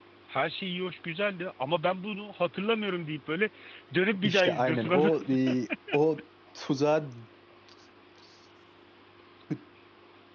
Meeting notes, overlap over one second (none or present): present